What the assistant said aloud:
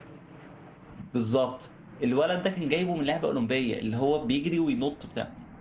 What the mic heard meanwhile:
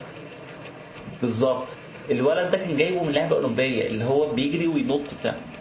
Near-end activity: none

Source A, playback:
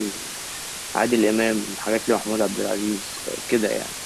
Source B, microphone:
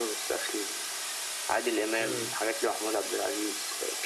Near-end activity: present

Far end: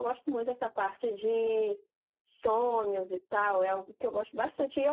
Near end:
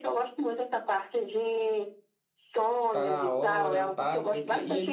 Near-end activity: present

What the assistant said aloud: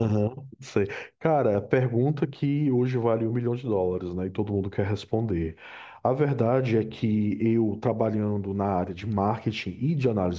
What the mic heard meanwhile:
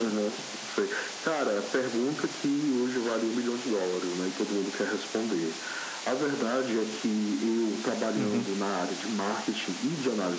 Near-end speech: present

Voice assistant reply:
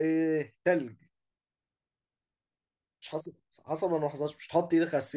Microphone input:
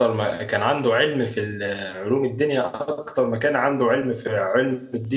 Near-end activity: present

